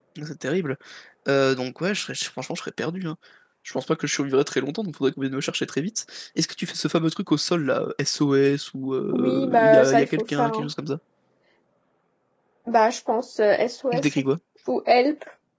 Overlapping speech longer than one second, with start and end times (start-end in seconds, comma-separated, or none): 9.1-10.7